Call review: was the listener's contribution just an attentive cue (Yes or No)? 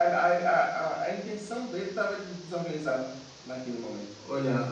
No